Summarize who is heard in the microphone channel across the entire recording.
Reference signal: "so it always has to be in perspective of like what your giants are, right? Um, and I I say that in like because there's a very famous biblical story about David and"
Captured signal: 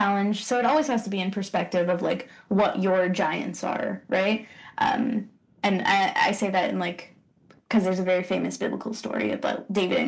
echo only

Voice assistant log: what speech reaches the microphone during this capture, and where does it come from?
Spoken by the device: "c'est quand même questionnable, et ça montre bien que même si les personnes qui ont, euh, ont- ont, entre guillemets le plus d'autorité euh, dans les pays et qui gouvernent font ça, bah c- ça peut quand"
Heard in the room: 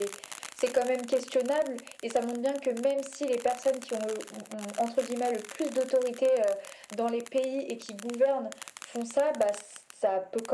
echo only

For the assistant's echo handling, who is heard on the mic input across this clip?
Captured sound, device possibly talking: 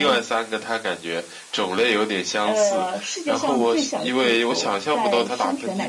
both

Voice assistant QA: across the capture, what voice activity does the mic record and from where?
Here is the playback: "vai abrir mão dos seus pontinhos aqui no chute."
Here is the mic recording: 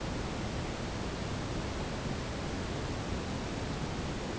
neither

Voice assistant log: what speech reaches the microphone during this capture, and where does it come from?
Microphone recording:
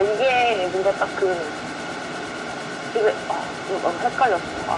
echo only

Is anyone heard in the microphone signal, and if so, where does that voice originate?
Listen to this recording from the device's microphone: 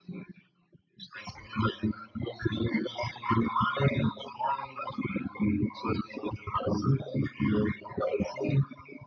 echo only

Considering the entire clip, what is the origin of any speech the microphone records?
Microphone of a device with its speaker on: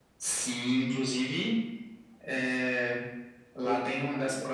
both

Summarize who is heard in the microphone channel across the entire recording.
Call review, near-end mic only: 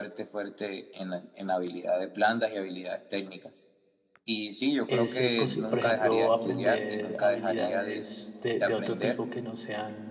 both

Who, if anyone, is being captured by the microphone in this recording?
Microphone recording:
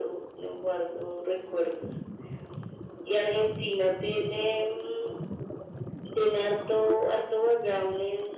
echo only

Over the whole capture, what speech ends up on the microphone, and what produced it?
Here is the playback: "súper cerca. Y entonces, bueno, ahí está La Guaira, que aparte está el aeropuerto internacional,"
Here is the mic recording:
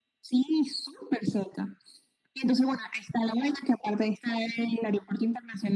echo only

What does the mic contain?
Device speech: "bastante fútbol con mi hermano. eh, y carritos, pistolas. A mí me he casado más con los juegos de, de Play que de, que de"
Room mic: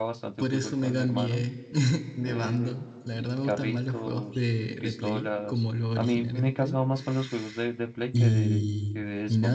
both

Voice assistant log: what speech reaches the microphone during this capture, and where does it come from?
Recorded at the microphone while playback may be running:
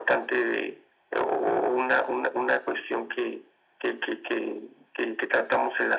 echo only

